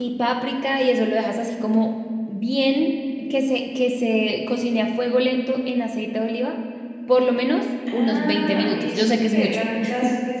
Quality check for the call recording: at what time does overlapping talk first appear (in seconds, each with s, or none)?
7.9 s